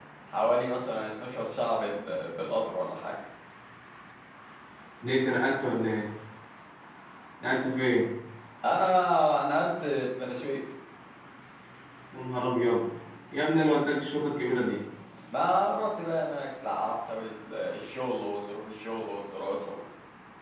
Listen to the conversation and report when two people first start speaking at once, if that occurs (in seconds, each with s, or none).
none